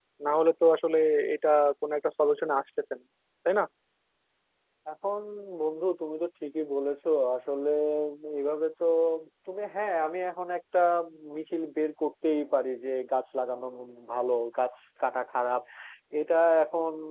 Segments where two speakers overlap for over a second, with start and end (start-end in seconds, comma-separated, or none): none